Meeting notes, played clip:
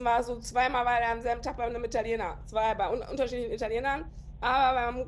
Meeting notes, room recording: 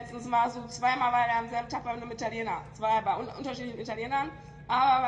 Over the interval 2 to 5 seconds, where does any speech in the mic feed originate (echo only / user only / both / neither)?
echo only